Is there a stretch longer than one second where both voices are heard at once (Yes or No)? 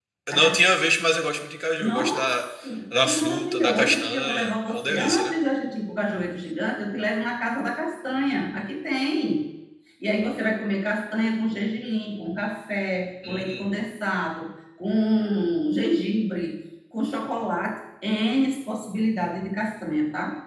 Yes